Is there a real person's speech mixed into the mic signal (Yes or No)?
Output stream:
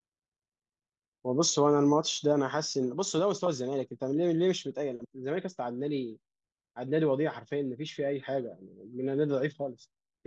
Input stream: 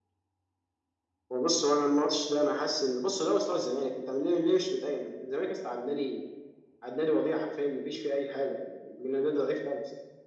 No